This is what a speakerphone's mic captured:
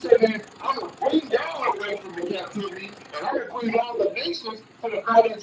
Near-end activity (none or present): none